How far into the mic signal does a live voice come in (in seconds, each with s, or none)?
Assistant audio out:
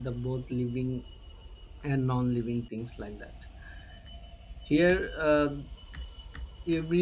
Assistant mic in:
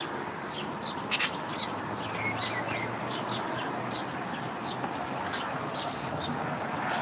none